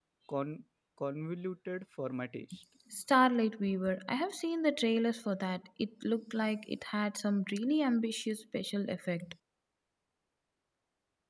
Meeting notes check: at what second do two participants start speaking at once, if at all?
none

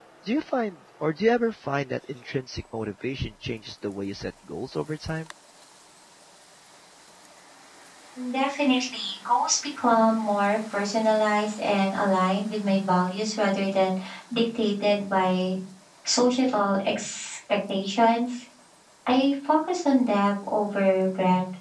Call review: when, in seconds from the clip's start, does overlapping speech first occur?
none

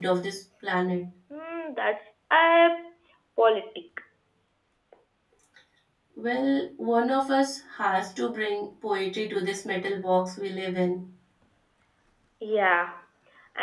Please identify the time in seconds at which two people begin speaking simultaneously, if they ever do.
none

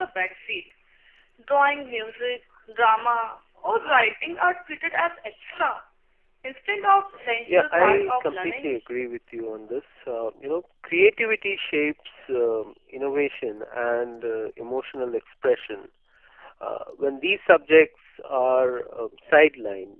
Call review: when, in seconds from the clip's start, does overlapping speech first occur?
7.5 s

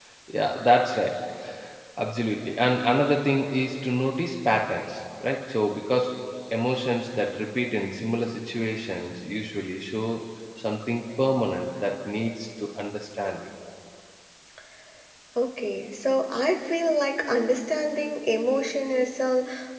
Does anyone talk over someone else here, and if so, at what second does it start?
none

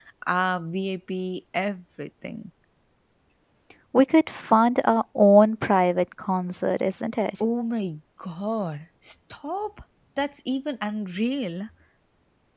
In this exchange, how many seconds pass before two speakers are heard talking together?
none

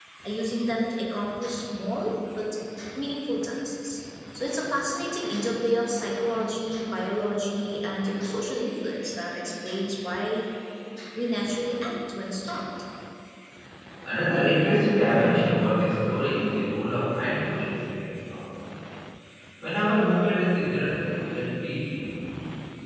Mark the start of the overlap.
none

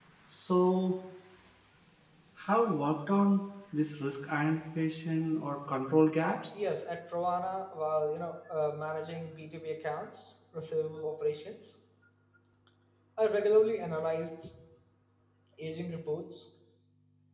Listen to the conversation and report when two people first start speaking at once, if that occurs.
none

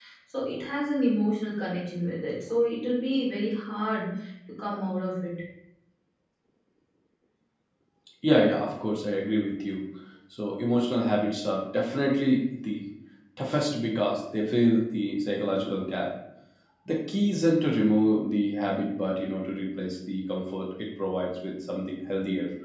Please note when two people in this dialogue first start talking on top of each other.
none

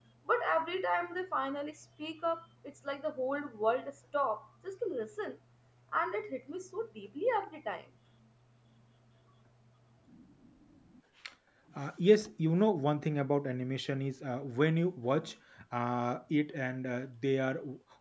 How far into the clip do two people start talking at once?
none

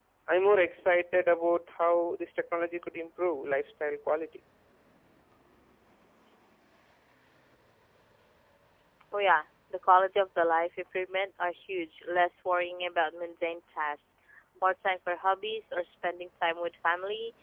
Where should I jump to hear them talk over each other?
none

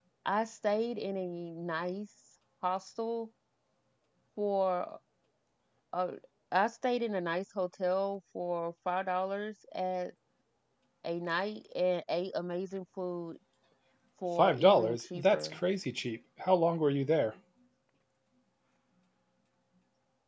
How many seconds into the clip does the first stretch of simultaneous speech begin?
14.4 s

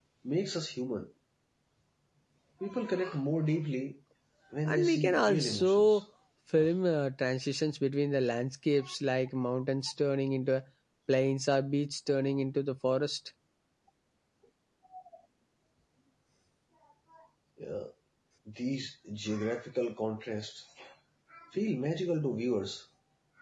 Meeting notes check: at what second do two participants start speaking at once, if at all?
4.7 s

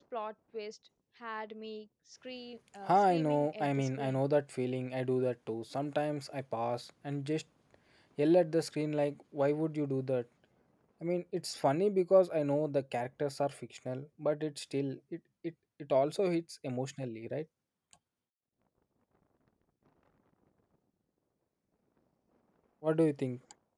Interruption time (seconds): 2.9 s

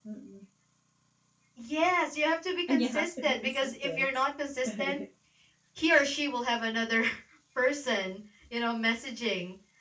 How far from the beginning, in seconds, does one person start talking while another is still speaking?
2.7 s

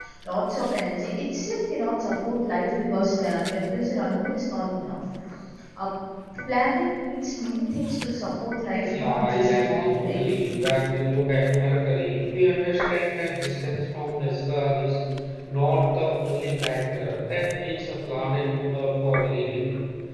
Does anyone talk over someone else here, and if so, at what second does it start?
8.8 s

